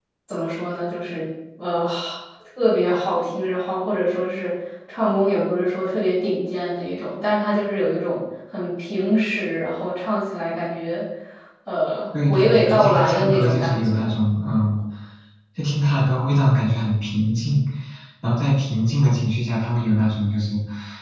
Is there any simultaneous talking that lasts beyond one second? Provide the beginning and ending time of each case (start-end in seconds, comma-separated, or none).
12.3-14.0